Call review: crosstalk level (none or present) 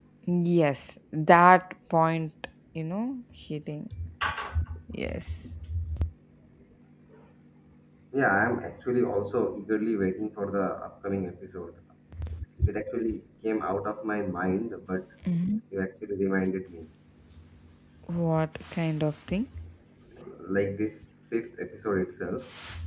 none